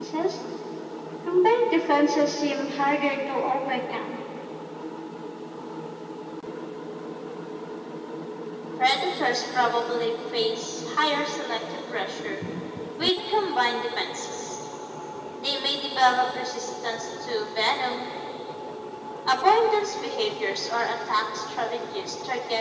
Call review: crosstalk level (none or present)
none